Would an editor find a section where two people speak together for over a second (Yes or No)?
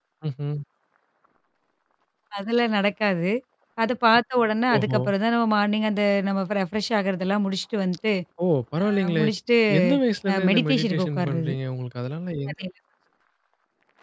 Yes